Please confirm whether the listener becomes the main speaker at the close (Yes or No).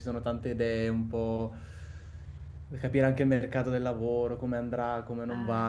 No